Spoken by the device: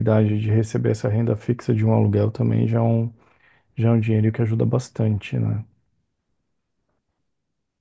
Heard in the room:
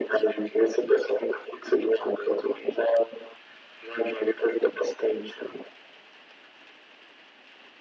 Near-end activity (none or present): none